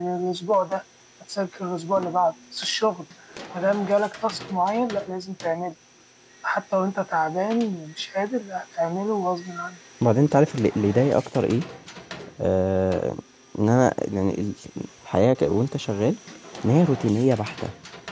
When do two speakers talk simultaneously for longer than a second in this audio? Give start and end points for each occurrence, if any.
none

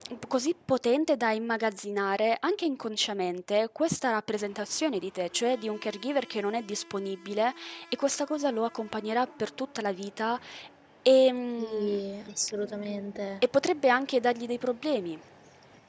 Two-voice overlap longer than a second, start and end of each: none

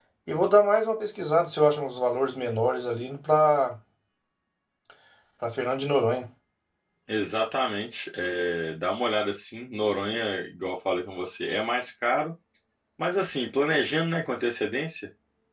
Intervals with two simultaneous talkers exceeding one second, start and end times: none

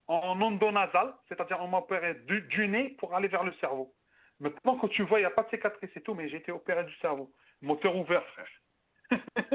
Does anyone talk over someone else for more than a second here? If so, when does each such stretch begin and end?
none

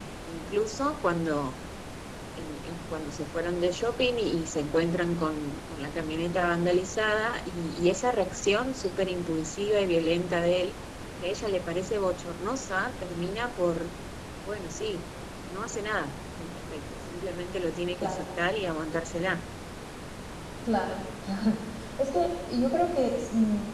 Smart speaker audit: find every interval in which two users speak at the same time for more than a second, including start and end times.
none

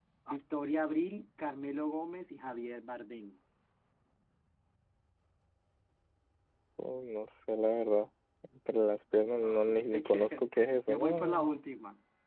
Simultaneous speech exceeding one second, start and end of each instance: 9.2-11.5

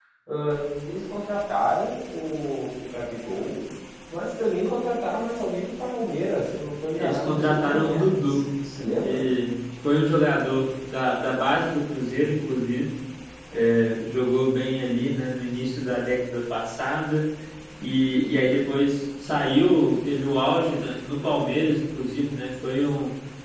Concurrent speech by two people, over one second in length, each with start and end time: 7.0-8.5

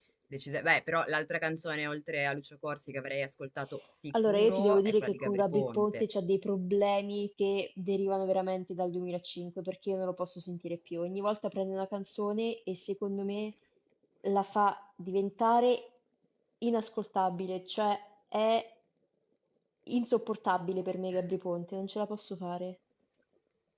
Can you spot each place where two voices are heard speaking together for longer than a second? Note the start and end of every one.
4.3-6.0

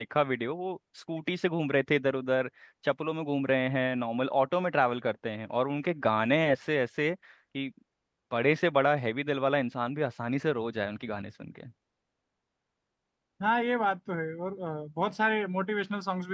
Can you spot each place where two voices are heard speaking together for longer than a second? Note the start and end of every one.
none

